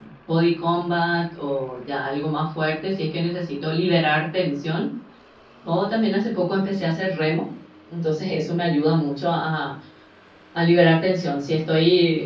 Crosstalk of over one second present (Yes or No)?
No